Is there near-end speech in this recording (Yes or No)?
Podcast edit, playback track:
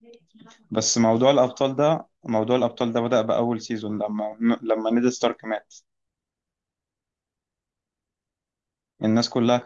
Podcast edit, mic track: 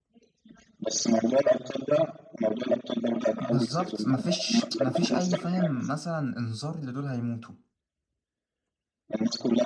Yes